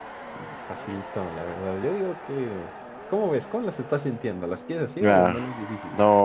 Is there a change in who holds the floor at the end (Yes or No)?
Yes